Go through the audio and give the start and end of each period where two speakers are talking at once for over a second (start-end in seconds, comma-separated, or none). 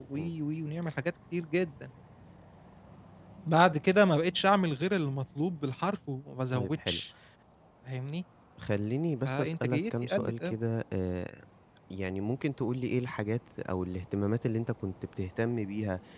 9.2-10.6